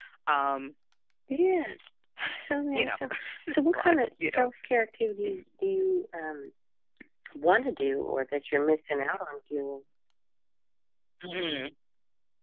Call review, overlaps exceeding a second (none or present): present